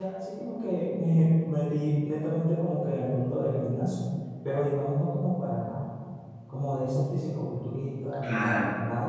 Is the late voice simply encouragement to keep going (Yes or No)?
Yes